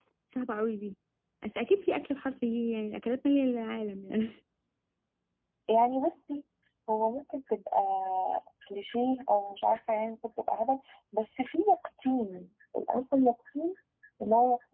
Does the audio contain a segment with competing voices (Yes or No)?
No